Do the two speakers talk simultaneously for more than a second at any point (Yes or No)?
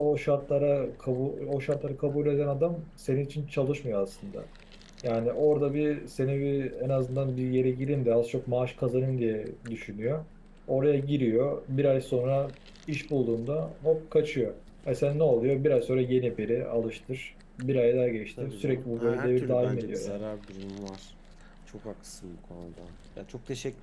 Yes